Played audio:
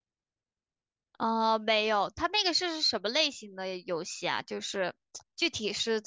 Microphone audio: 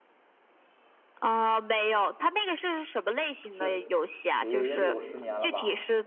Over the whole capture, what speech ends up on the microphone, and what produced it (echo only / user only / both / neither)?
both